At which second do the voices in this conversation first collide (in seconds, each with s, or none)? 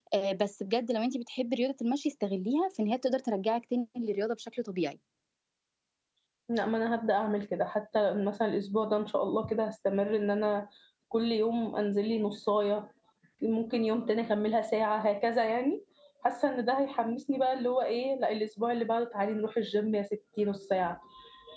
none